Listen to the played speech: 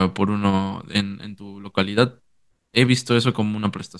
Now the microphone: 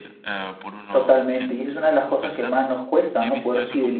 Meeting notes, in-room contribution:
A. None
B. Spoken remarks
B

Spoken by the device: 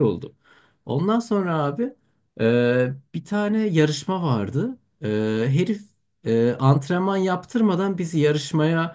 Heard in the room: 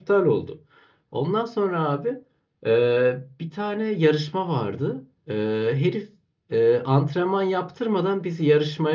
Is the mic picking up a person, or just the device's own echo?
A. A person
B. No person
B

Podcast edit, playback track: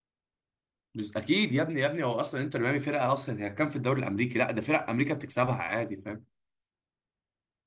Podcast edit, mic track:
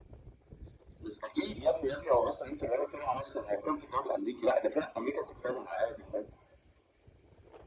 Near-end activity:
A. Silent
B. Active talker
A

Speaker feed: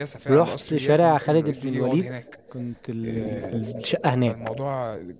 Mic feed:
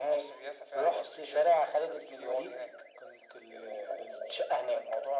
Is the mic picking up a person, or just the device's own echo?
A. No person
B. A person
A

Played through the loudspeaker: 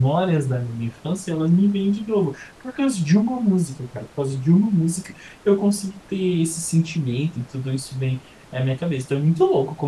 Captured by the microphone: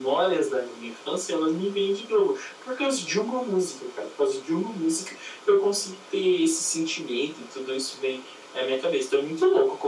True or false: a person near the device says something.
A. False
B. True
A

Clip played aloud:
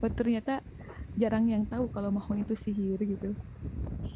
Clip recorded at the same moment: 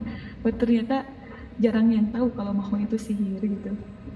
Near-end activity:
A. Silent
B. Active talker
A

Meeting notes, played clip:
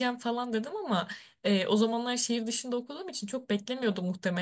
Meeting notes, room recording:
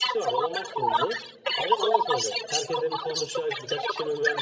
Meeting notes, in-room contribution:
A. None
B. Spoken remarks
B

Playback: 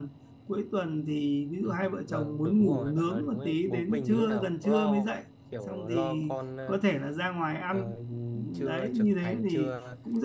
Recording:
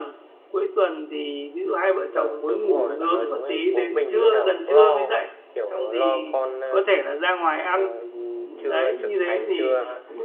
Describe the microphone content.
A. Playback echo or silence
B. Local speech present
A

